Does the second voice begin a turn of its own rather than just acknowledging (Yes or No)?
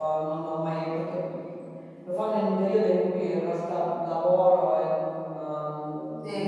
Yes